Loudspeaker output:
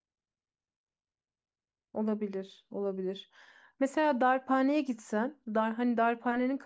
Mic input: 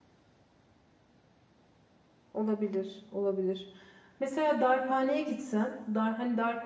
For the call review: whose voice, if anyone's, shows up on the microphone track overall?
echo only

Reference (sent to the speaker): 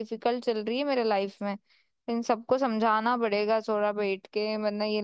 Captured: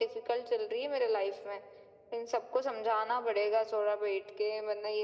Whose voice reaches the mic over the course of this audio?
echo only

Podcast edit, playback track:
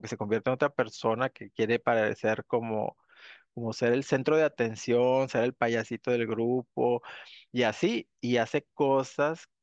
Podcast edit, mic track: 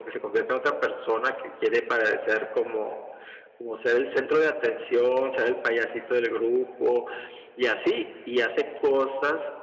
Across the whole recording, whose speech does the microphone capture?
echo only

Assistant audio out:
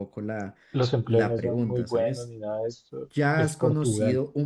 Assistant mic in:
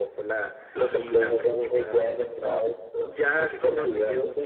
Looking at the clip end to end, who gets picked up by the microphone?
both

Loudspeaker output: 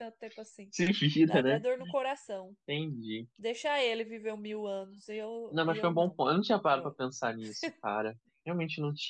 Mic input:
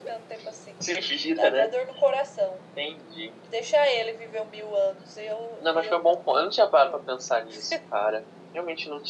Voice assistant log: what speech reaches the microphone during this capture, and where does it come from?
echo only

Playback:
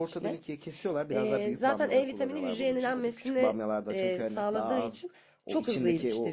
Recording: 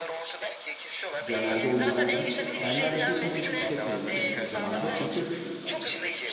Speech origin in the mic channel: both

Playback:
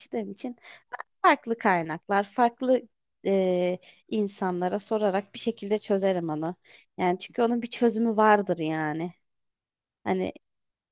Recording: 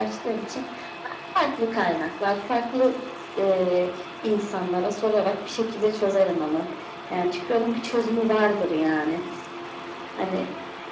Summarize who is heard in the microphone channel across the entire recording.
echo only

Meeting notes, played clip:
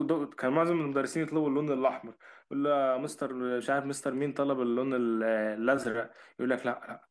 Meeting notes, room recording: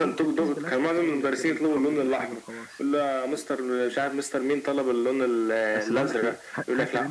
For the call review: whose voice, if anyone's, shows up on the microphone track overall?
both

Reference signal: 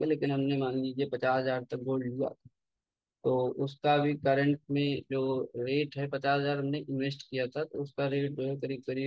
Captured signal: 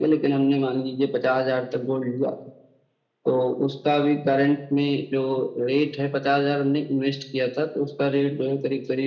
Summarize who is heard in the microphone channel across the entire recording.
echo only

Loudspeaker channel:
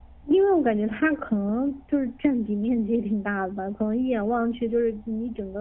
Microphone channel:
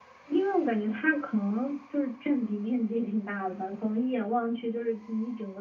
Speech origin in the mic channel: echo only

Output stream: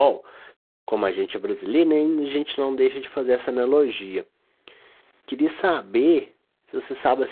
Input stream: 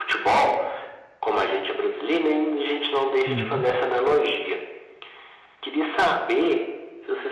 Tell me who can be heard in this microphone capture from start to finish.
both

